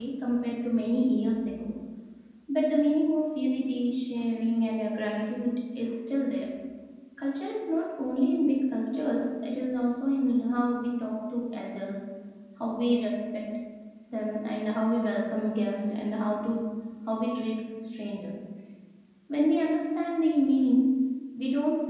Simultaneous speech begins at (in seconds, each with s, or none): none